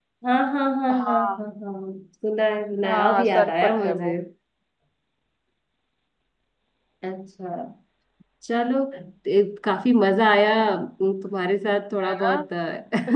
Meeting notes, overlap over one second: present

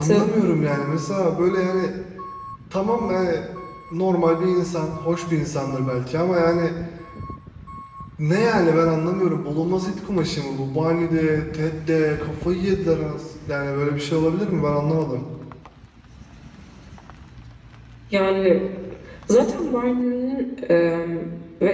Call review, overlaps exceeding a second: none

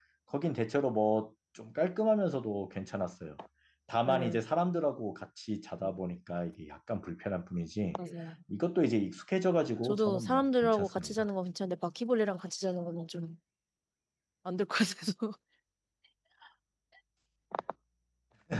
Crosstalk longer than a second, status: present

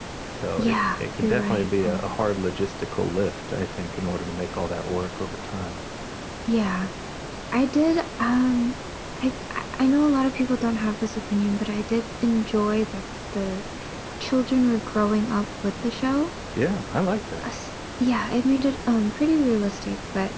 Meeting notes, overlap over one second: present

